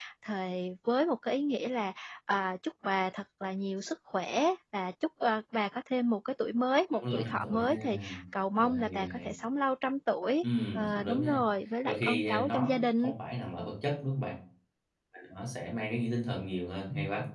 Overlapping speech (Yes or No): Yes